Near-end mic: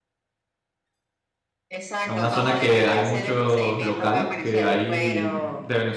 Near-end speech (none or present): present